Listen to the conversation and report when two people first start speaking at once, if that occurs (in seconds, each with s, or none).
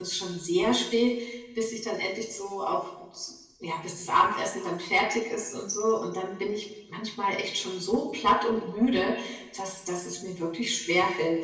none